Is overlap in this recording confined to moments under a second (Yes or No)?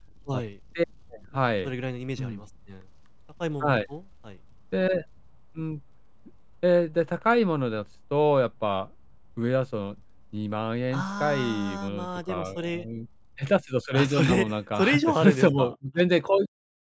No